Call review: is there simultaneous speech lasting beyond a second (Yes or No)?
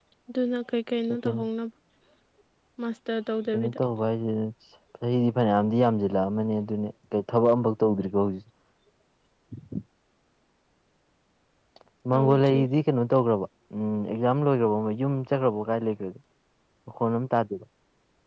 No